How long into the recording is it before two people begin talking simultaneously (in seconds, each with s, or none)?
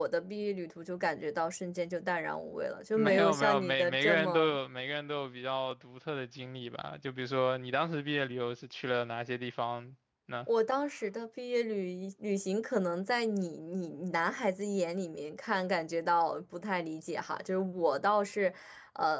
3.0 s